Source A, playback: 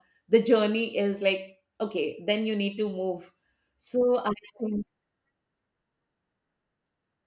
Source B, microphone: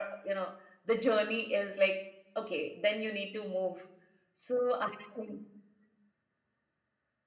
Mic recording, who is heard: echo only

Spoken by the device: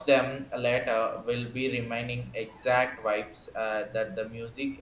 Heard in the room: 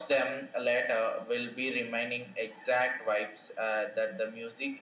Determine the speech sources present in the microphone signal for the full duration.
echo only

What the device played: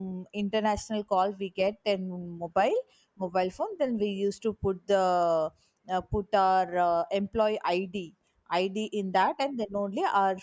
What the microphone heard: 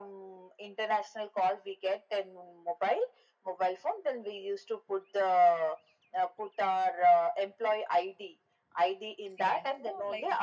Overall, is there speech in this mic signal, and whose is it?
both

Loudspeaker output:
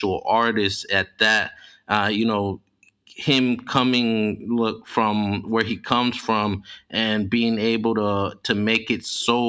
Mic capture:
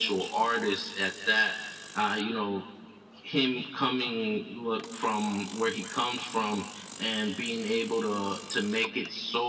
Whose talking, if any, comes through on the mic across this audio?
echo only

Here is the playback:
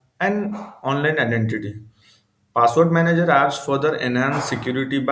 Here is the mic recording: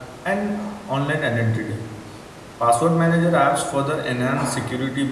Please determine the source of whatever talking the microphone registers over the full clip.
echo only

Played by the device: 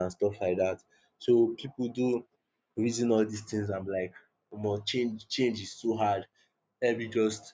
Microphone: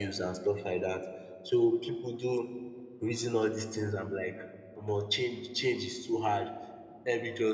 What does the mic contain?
echo only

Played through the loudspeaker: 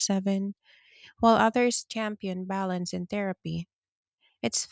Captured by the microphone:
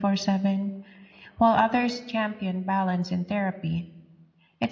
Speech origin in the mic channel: echo only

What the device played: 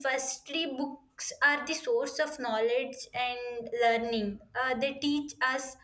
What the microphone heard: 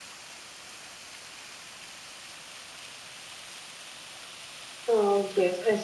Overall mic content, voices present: user only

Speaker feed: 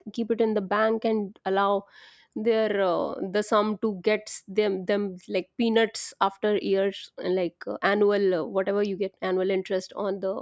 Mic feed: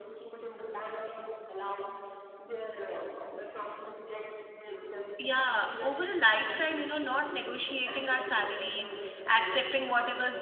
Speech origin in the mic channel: both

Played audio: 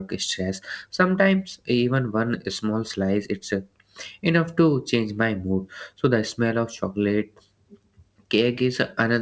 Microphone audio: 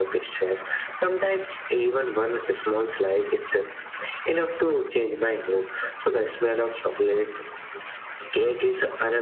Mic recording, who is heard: echo only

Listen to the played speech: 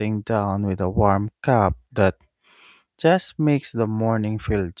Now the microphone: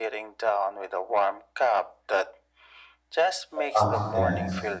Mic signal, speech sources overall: both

